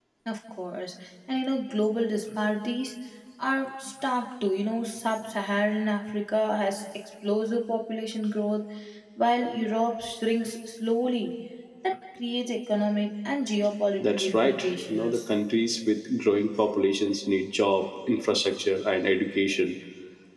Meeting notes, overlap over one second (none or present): present